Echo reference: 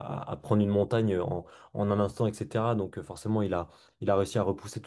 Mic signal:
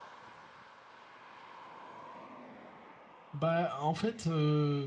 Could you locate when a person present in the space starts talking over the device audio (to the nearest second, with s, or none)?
3 s